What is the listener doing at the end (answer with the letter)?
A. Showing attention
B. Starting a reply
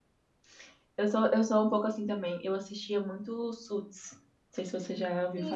B